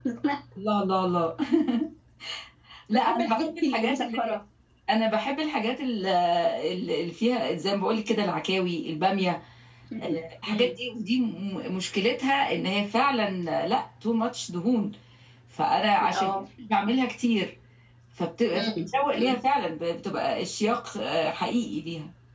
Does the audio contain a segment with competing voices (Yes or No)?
Yes